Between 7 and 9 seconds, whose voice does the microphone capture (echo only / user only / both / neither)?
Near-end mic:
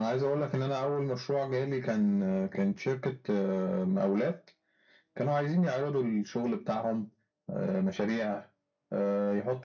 echo only